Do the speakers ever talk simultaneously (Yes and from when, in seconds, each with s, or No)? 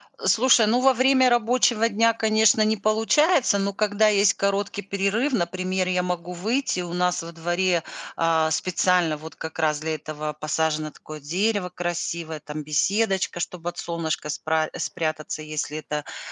No